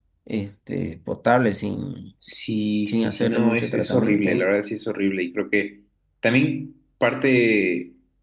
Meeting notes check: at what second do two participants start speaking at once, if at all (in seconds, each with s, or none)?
2.9 s